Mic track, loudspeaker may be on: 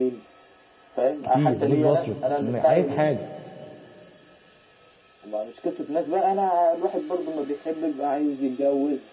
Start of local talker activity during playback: 1.2 s

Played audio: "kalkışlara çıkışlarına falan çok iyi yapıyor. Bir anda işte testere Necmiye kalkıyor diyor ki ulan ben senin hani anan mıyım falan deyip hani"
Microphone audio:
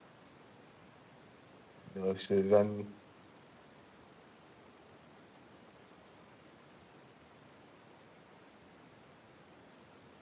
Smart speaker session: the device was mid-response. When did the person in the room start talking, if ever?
1.9 s

